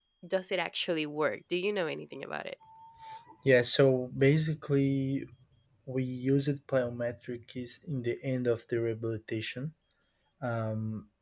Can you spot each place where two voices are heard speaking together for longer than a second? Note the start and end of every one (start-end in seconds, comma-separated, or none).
none